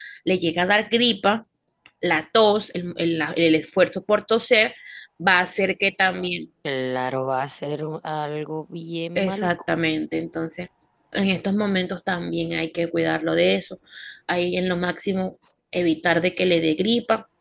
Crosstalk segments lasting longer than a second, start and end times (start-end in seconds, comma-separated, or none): none